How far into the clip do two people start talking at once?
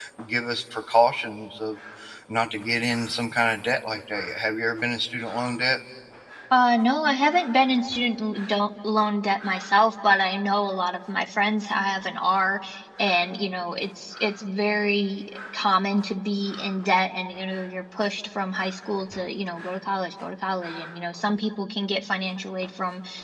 none

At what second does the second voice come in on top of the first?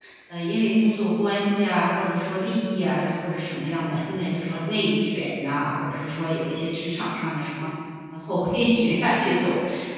none

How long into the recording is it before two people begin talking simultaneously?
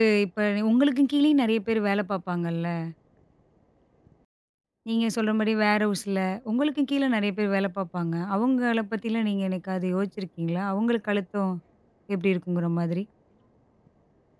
none

